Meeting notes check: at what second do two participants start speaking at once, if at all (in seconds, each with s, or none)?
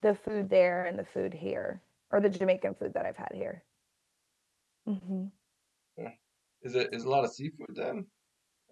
none